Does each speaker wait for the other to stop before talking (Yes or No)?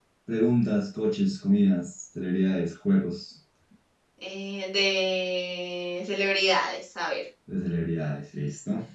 Yes